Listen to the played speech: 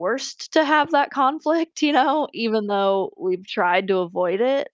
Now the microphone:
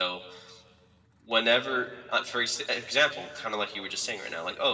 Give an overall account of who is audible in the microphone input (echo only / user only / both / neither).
user only